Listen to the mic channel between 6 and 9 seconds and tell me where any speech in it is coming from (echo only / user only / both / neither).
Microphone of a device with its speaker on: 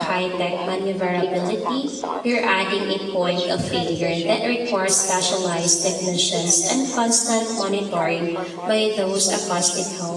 both